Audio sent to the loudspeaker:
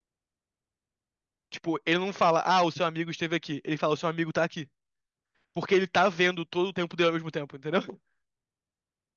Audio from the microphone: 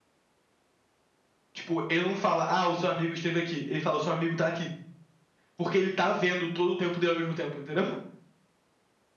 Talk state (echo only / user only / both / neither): echo only